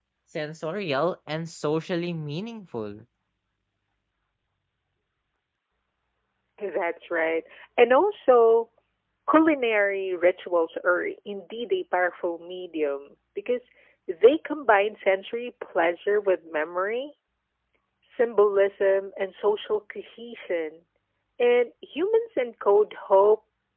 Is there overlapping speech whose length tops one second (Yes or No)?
No